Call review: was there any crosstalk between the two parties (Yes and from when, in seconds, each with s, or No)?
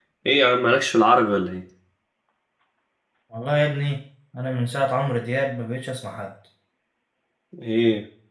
No